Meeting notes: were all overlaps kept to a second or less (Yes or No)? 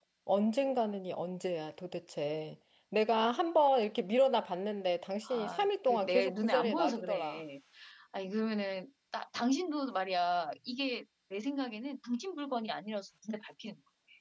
No